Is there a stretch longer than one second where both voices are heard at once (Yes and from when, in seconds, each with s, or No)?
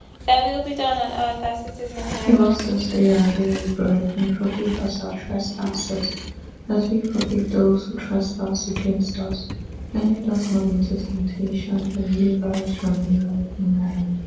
No